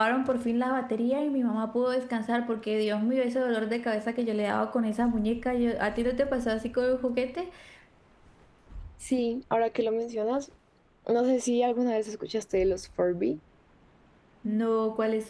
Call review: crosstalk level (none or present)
none